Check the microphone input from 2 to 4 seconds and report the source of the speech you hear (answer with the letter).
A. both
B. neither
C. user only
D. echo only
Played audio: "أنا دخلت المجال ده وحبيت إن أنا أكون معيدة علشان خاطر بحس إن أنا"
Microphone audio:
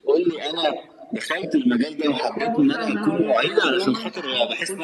A